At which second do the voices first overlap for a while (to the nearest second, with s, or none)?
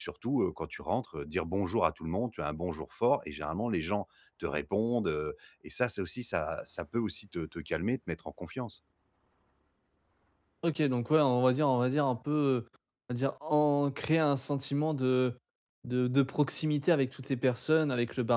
none